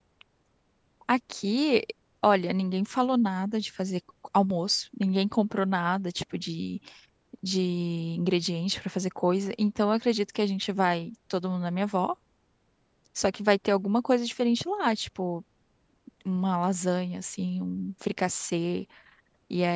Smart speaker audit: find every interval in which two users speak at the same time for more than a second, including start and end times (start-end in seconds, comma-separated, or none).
none